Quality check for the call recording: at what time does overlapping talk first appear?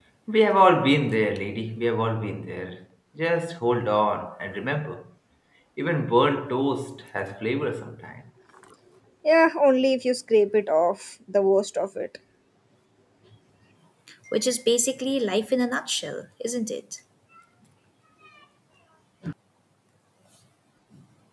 none

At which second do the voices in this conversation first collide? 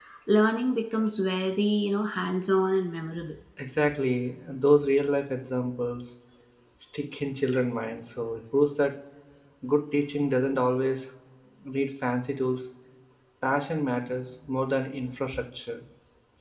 none

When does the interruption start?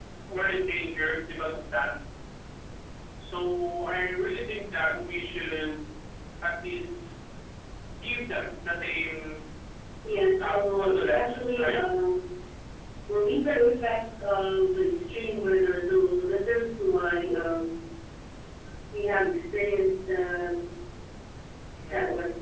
10.4 s

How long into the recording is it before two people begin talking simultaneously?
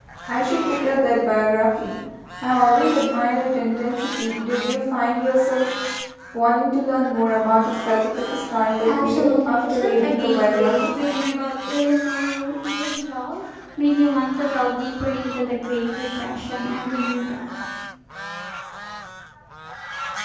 8.8 s

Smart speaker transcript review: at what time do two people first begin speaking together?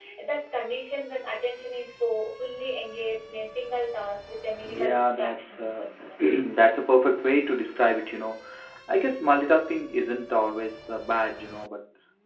4.6 s

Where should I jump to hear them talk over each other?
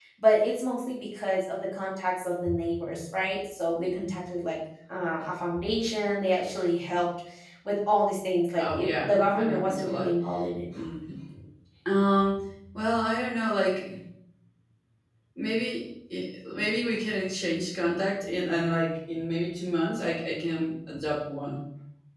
8.6 s

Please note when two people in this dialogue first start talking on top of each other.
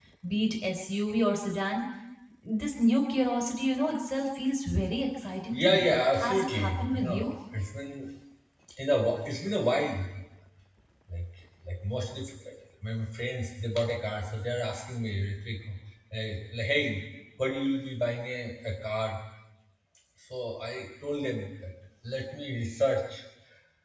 5.5 s

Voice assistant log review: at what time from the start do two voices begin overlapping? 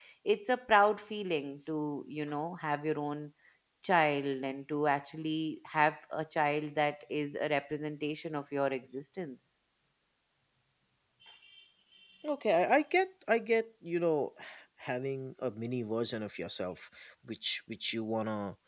none

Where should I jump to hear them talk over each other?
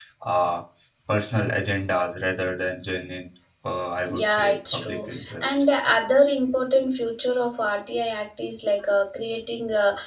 4.0 s

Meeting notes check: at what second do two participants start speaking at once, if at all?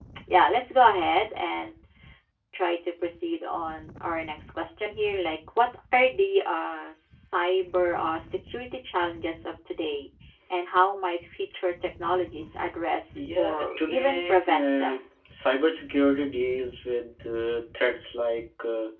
13.2 s

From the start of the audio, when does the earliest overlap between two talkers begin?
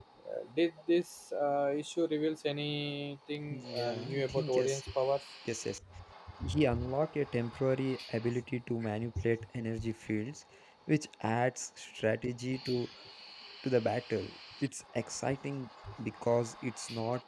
3.5 s

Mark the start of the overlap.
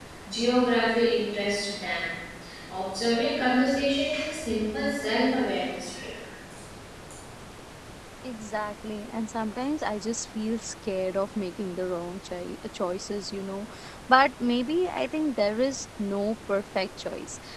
none

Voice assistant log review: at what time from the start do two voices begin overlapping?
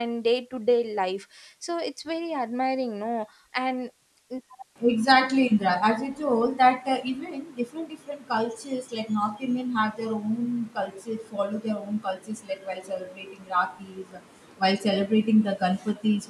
none

